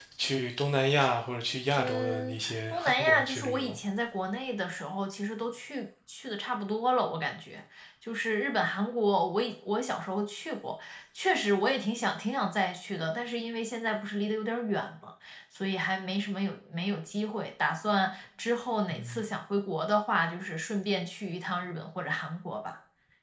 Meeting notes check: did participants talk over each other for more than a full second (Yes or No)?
Yes